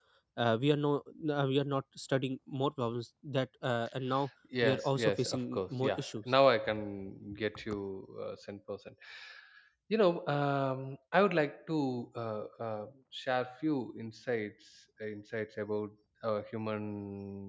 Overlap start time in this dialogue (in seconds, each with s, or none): 4.6 s